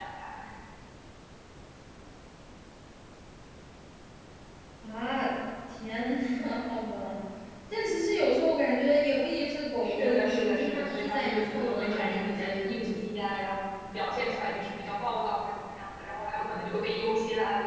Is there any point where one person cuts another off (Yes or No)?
Yes